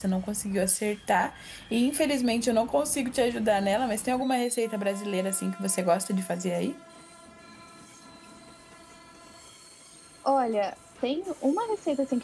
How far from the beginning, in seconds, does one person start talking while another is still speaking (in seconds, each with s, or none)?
none